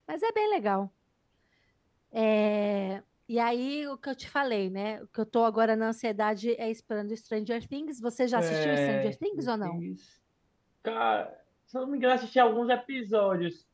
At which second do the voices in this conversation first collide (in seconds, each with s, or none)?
8.3 s